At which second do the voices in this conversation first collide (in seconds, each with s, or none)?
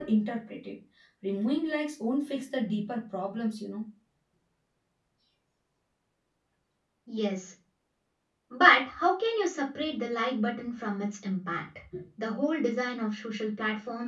none